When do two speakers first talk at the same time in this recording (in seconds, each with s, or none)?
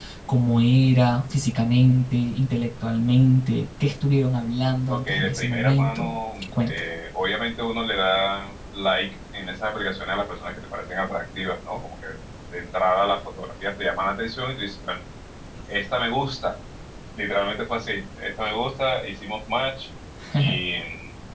4.9 s